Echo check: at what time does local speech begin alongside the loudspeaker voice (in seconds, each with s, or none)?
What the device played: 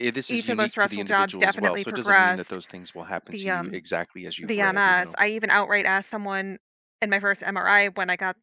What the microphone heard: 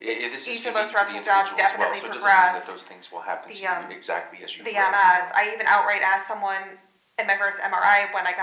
none